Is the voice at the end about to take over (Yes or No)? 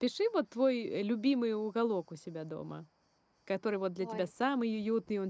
No